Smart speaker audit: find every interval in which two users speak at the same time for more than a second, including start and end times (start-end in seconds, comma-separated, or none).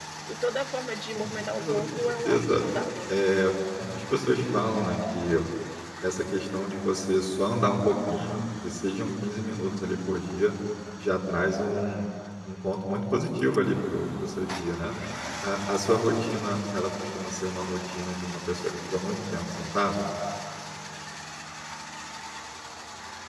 1.1-2.6